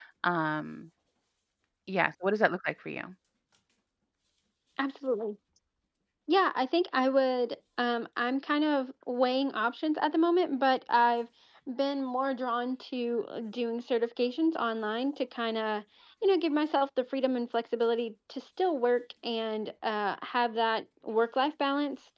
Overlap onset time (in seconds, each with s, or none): none